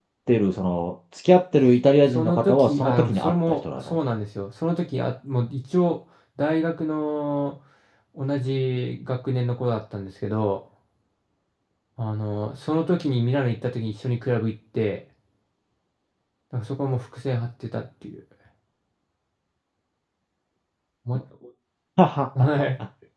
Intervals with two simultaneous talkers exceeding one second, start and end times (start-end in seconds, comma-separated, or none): 2.1-4.0